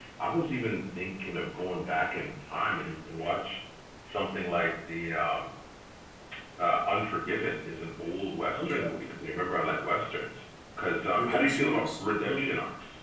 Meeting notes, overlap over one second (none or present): present